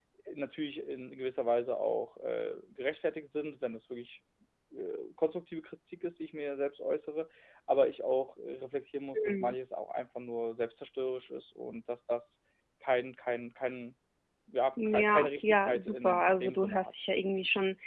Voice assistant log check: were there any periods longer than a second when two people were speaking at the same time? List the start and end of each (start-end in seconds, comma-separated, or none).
14.8-16.9